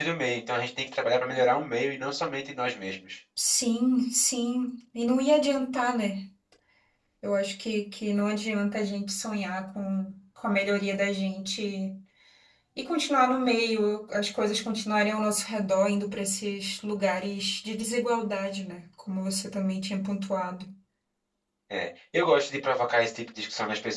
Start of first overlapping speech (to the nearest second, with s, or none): none